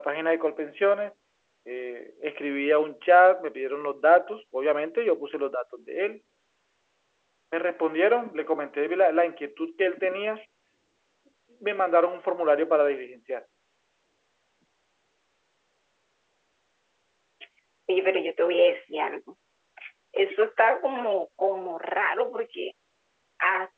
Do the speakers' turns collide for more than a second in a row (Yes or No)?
No